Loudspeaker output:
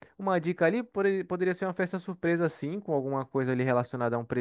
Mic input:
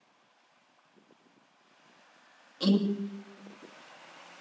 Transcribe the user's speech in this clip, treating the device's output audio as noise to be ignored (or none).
E-